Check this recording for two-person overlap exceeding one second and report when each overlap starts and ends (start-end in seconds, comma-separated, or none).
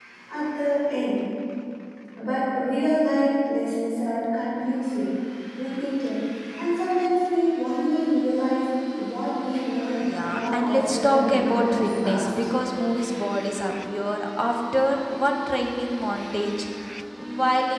10.2-12.3